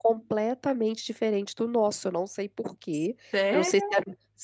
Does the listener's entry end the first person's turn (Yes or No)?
No